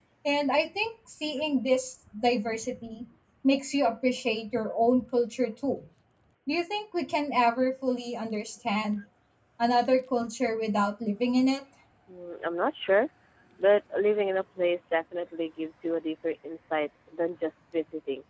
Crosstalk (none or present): none